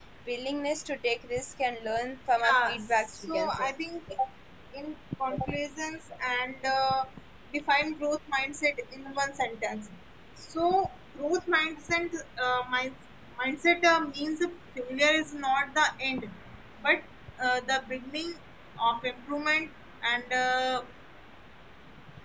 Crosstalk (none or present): present